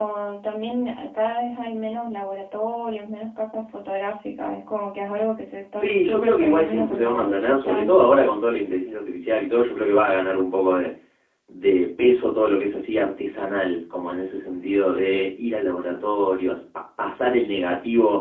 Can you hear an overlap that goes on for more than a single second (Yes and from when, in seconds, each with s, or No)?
Yes, from 5.8 s